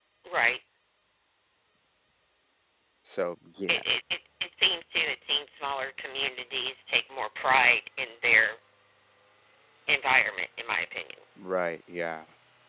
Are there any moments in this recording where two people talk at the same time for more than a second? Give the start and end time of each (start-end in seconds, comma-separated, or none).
none